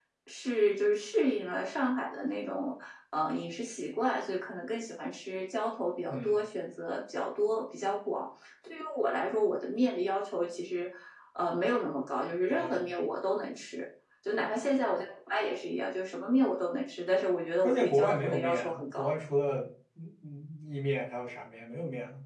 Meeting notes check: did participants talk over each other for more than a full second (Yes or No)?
Yes